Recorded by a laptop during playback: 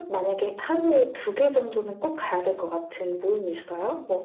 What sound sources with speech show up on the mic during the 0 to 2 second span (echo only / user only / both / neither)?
echo only